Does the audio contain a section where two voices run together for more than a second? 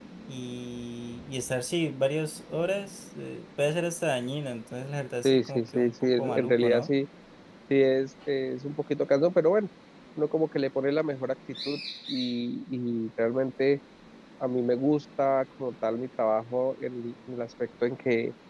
Yes, from 5.2 s

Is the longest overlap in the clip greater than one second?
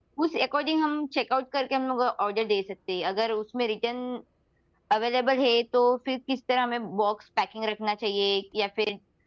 No

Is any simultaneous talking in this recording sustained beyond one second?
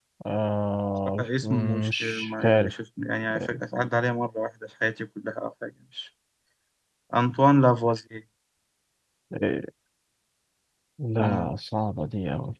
Yes, from 1.2 s

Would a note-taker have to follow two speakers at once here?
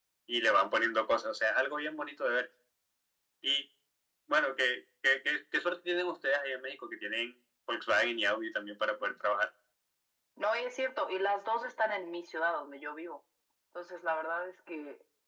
No

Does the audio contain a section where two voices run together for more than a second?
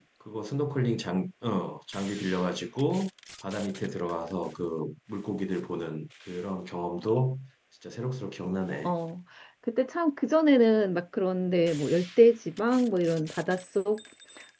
No

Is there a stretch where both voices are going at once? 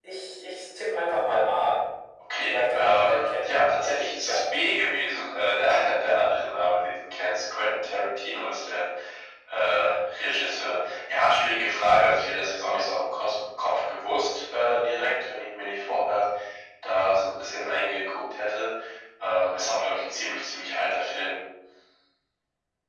Yes, from 2.5 s

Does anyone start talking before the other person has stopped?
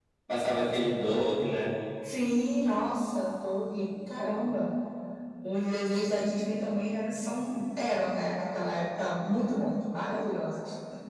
No

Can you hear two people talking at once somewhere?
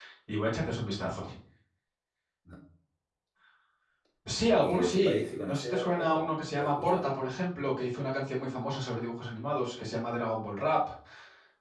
Yes, from 4.6 s

